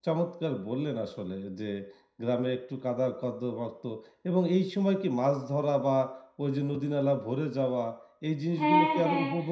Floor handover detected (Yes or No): Yes